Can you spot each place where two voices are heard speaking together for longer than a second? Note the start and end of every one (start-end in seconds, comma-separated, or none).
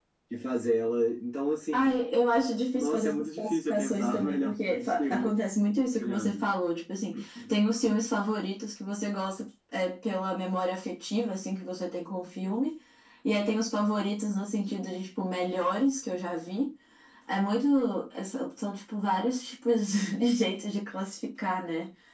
2.7-5.3